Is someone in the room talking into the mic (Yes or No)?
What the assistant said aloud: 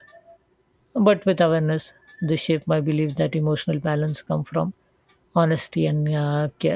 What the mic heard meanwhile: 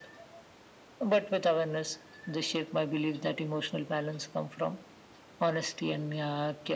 No